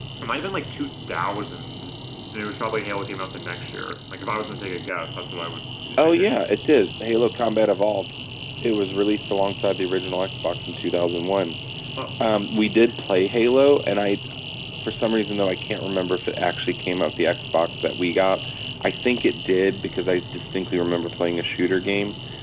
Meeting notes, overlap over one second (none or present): none